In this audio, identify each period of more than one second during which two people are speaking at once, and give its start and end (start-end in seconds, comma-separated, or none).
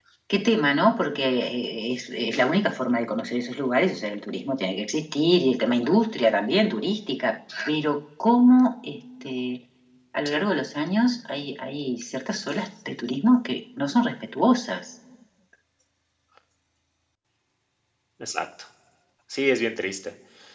none